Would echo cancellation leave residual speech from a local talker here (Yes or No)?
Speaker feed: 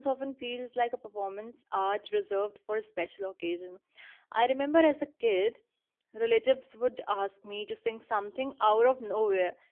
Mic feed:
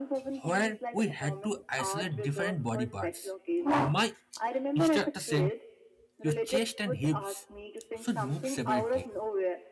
Yes